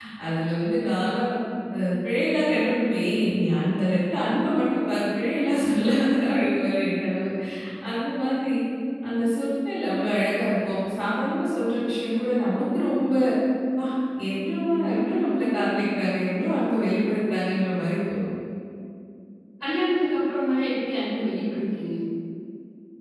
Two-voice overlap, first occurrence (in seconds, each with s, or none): none